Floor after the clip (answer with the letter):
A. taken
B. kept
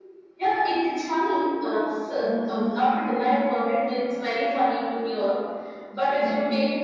B